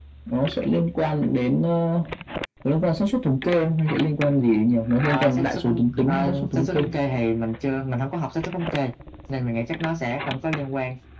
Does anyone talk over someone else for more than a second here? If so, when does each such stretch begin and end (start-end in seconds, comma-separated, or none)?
5.0-6.9